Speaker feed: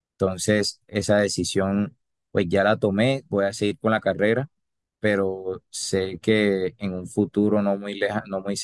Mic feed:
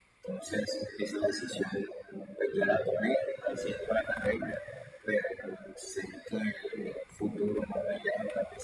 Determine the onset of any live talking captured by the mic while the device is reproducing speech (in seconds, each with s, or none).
none